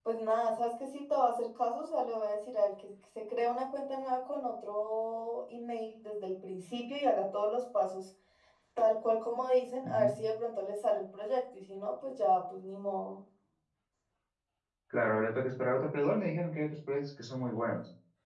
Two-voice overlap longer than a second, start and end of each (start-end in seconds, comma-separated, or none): none